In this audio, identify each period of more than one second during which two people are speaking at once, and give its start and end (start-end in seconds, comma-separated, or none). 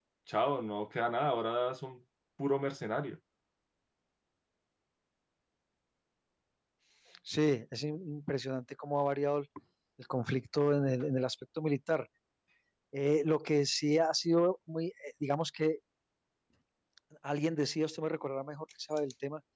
none